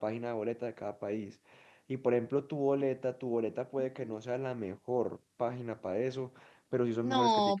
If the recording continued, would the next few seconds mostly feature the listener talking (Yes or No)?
Yes